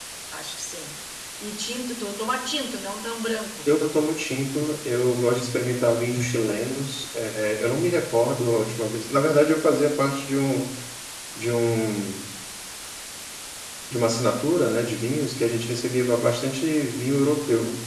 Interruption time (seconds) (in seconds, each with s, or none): none